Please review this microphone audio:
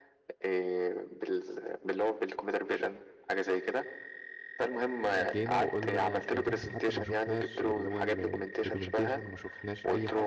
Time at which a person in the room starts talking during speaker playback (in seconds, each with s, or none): 5.2 s